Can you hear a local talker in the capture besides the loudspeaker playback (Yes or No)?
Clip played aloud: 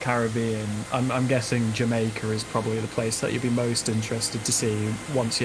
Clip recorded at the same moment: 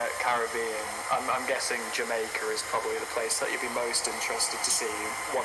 No